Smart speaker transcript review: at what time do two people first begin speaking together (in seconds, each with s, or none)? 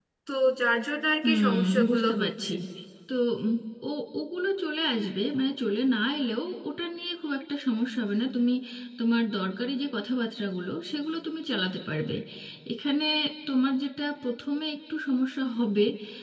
1.2 s